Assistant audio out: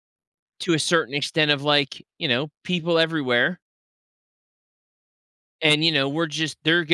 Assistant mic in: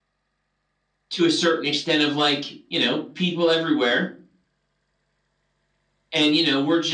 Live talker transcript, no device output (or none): none